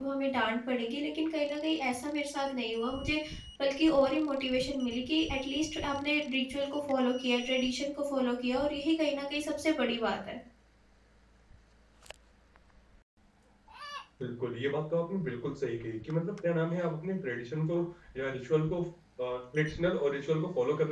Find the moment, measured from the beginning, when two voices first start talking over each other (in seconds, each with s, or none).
none